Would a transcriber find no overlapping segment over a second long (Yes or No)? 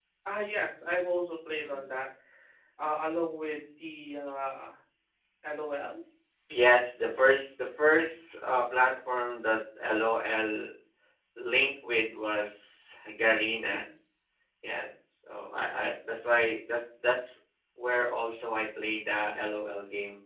Yes